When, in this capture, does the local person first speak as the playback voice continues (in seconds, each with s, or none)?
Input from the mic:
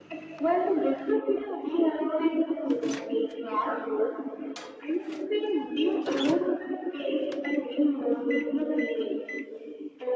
none